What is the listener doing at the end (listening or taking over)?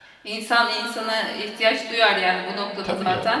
listening